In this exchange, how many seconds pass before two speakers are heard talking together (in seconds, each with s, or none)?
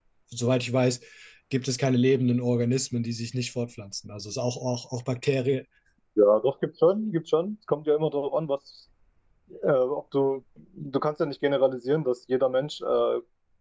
none